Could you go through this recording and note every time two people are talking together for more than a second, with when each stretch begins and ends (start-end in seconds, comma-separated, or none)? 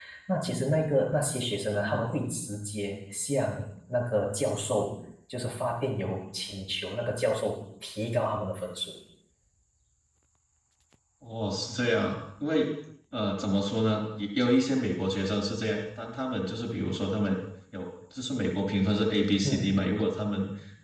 none